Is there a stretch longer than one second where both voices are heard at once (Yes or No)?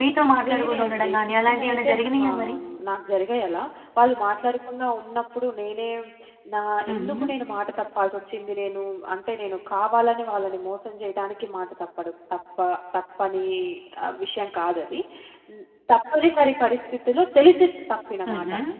Yes